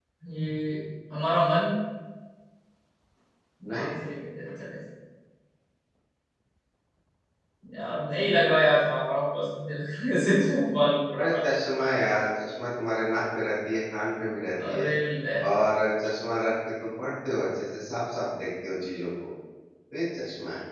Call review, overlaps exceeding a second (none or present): none